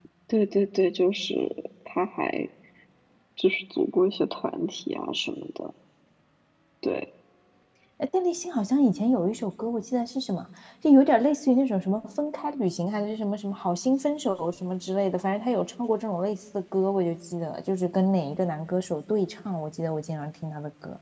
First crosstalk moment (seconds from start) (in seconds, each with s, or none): none